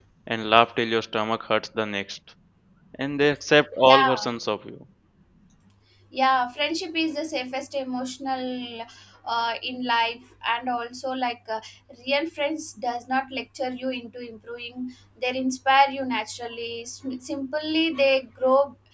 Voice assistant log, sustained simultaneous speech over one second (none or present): none